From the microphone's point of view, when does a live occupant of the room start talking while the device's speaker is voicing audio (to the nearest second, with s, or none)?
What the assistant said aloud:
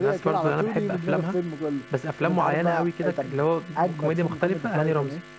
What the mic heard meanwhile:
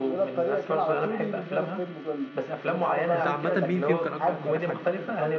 3 s